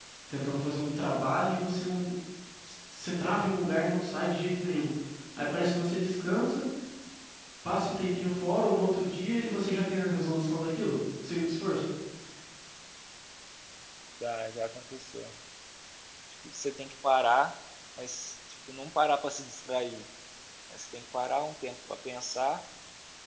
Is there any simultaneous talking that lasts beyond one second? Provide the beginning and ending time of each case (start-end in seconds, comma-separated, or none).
none